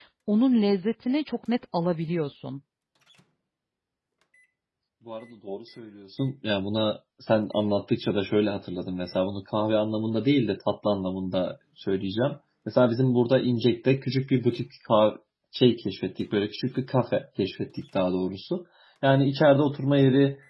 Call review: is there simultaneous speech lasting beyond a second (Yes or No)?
No